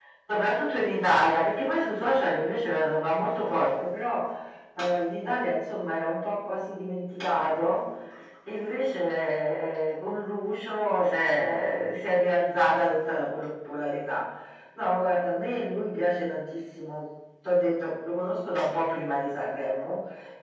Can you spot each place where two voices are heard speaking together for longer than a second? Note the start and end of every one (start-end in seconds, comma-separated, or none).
none